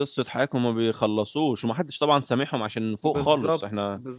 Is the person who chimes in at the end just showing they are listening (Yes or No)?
No